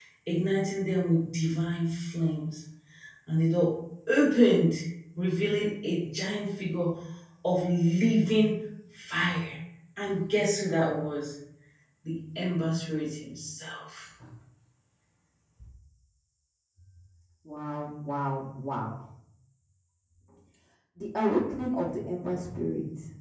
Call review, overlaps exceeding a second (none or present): none